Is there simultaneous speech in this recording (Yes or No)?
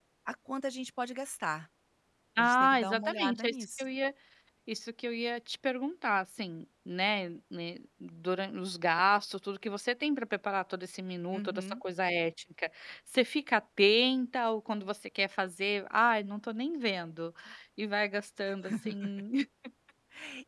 Yes